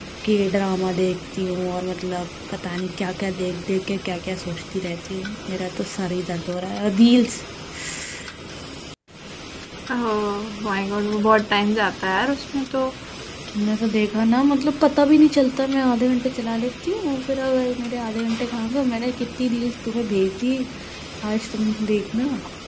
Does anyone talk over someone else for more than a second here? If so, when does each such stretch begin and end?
none

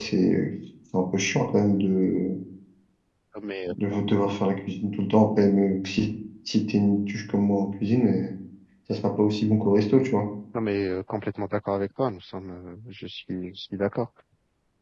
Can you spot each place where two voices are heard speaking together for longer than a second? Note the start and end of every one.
none

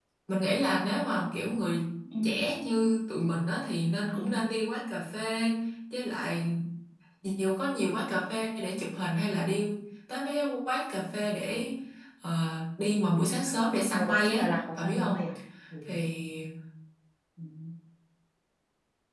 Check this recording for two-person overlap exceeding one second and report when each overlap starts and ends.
13.9-15.1

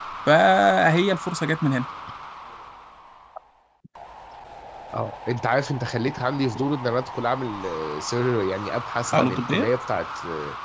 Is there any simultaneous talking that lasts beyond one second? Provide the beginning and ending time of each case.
none

